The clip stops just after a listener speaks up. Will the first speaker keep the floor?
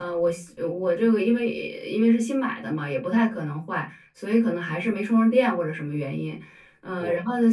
Yes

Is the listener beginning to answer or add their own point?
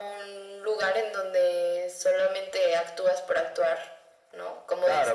Yes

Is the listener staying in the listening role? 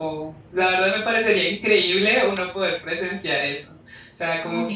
Yes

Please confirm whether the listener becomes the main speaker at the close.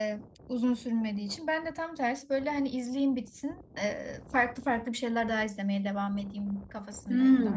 Yes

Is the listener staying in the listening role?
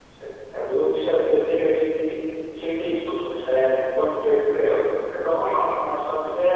Yes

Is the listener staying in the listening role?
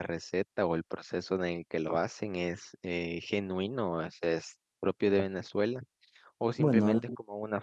Yes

